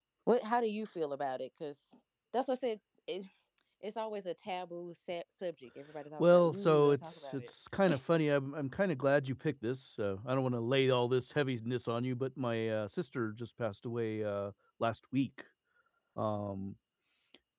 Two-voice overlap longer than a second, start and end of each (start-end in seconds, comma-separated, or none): 6.2-7.5